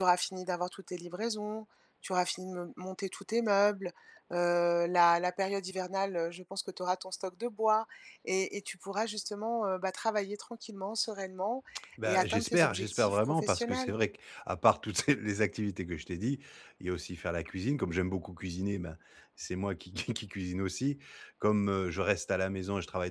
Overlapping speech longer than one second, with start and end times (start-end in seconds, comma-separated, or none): 12.1-13.9